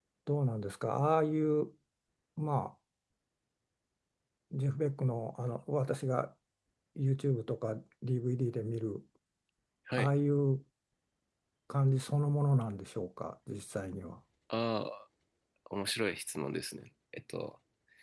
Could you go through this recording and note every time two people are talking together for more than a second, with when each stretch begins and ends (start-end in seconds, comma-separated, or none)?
none